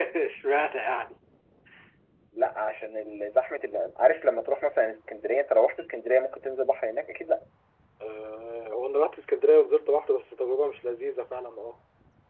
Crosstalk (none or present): none